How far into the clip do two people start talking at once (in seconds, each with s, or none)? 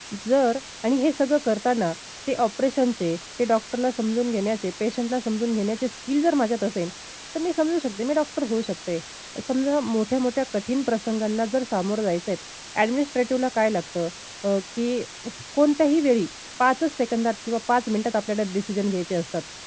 none